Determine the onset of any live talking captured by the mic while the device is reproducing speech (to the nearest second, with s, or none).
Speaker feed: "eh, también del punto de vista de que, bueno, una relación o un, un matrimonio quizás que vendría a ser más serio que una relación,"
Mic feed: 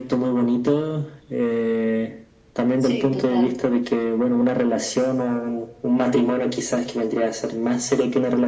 3 s